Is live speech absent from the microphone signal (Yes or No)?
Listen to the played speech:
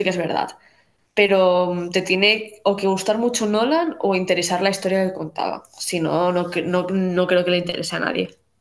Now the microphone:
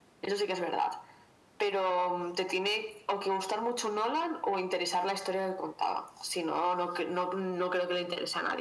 Yes